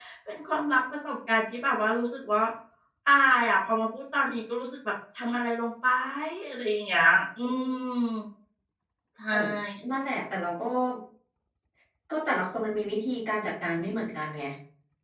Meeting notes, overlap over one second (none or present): none